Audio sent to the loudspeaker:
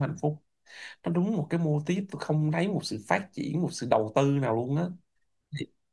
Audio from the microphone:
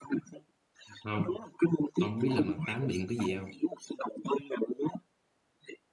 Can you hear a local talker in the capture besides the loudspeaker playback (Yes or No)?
Yes